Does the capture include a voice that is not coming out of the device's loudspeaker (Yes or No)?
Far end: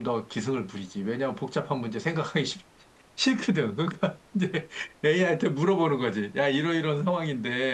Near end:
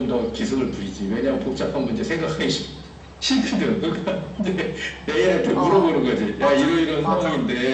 Yes